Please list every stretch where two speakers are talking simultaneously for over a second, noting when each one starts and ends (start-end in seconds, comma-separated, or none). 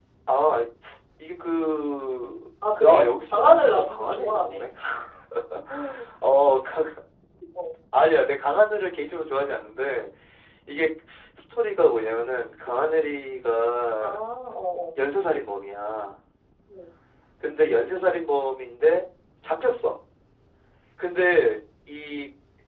2.8-4.7